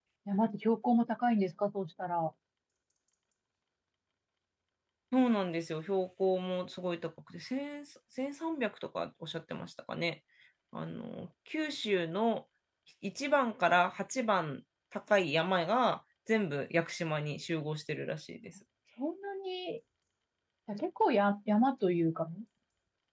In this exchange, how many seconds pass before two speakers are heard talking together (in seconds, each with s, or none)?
none